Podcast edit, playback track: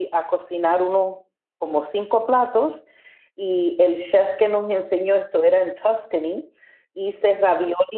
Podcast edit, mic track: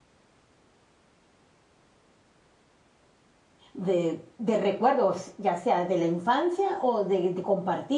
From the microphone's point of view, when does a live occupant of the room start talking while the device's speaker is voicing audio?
3.7 s

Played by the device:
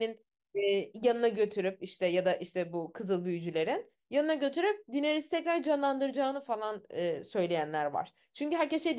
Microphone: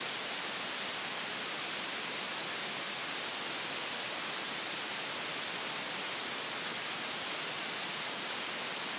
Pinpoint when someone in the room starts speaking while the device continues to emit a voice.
none

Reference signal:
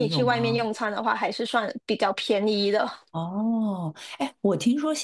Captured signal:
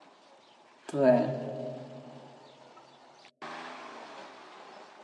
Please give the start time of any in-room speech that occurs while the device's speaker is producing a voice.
0.8 s

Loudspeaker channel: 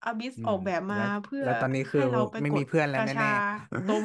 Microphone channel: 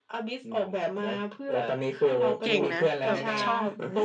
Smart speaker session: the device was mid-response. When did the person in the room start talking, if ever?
2.4 s

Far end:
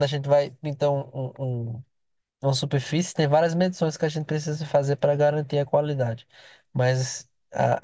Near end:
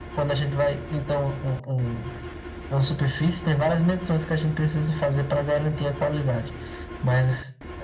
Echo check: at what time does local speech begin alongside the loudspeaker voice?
none

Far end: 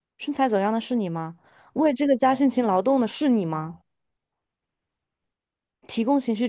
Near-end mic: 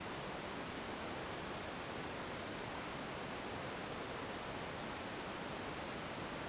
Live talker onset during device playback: none

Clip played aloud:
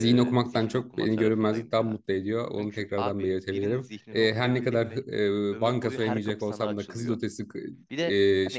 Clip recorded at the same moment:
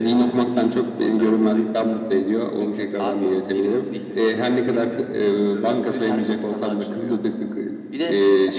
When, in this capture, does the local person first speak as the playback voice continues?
none

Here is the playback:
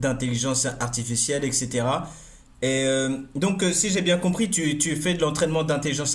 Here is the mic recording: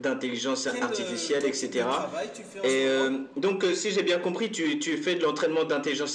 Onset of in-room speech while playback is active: 0.6 s

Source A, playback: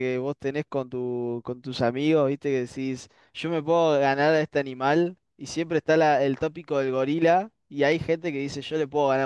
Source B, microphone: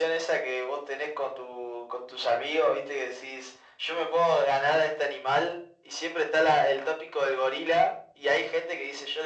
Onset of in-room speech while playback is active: none

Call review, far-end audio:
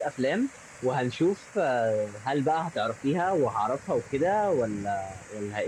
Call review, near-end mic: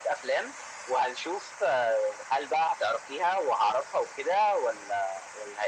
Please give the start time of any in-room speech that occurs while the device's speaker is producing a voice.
none

